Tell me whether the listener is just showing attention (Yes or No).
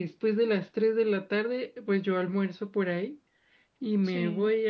Yes